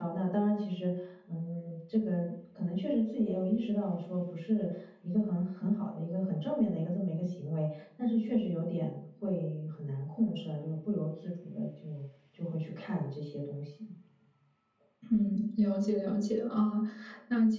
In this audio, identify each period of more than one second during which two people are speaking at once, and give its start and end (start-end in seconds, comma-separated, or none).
none